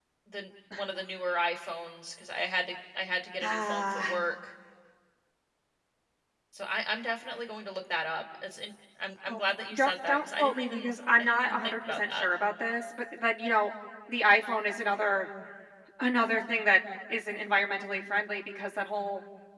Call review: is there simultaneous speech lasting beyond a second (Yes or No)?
Yes